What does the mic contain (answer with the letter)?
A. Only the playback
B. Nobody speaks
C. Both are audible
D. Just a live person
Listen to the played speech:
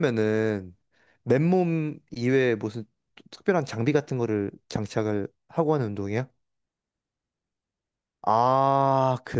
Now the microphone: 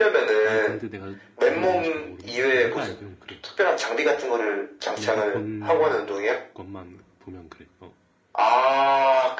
C